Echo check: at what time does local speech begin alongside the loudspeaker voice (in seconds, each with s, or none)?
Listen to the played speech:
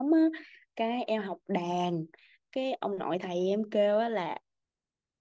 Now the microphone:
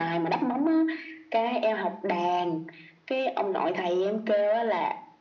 none